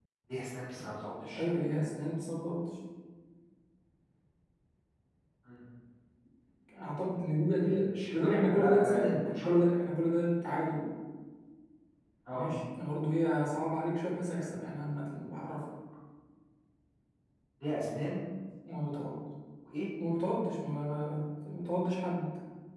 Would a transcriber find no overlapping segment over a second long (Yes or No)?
No